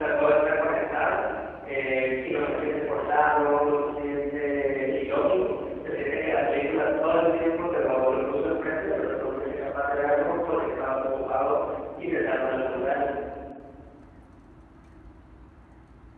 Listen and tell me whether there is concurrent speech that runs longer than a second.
No

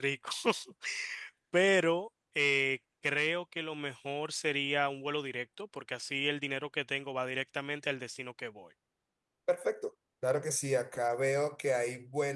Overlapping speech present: No

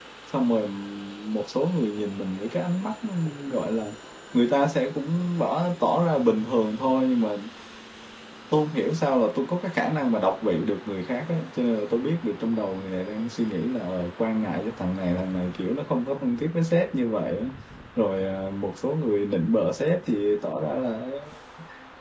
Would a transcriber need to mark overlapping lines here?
No

